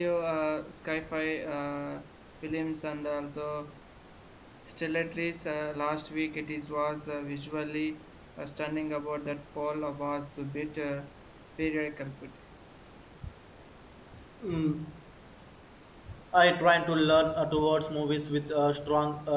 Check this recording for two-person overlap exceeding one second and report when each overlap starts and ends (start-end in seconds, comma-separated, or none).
none